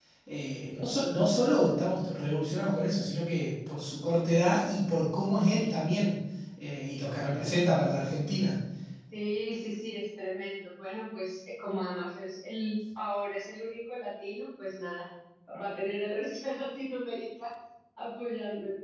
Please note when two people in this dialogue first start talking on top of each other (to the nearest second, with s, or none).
none